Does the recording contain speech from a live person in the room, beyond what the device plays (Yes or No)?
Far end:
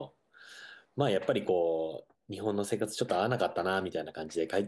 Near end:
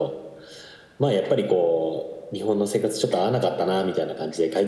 No